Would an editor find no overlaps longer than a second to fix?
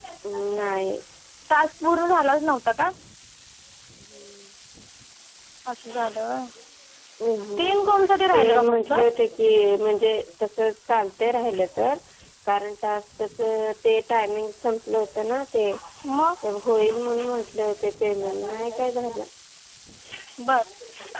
No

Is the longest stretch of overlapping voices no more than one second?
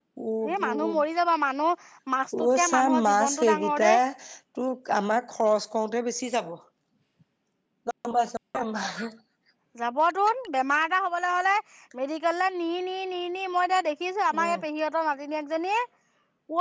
No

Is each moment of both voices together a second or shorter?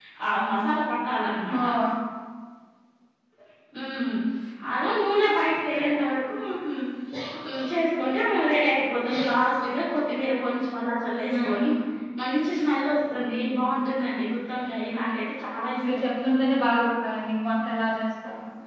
Yes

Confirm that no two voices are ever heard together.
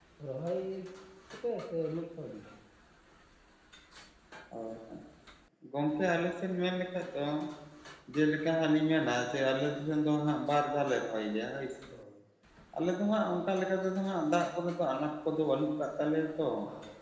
Yes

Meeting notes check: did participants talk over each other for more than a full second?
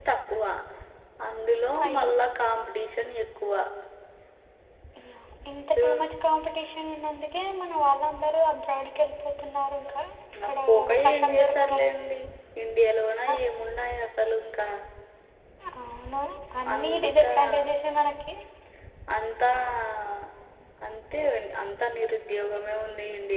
Yes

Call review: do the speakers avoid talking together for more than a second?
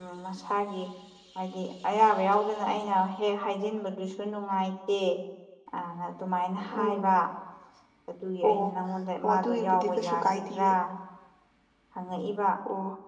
No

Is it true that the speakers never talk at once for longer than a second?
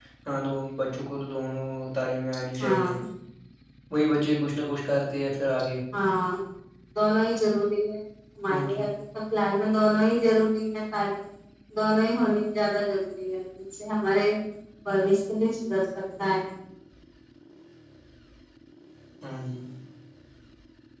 Yes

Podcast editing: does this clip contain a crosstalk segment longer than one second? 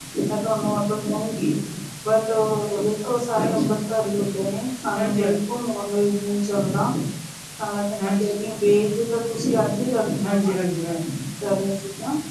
No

